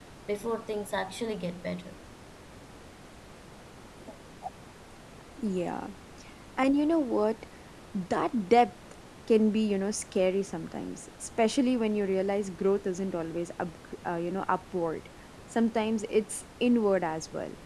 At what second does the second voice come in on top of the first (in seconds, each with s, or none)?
none